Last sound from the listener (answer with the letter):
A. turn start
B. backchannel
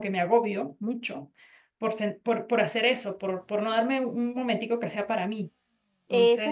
A